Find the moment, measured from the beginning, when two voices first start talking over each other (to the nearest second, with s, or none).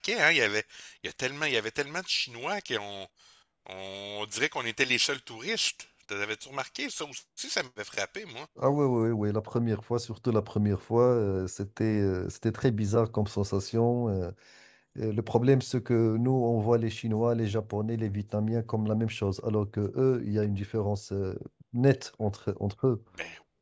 none